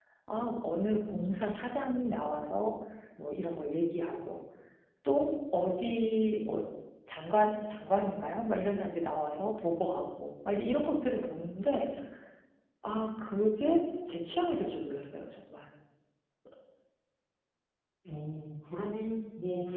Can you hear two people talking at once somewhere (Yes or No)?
No